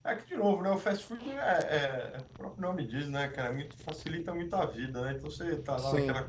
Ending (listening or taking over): listening